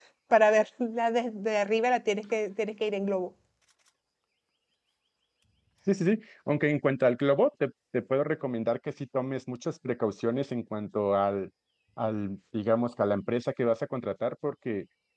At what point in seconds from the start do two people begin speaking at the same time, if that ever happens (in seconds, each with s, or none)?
none